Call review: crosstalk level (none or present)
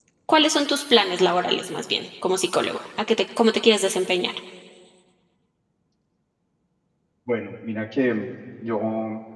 none